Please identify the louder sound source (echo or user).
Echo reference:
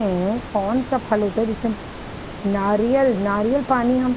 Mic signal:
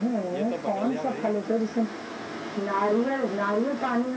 echo